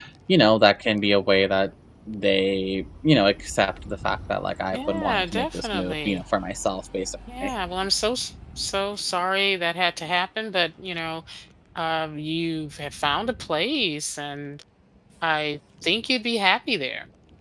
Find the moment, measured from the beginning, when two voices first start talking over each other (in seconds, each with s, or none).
4.7 s